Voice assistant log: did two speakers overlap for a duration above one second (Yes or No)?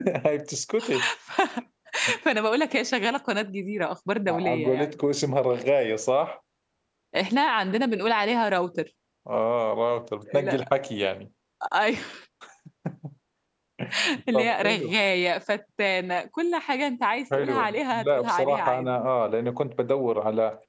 Yes